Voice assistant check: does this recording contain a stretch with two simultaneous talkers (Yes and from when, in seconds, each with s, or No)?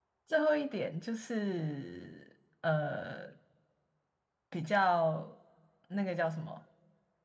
No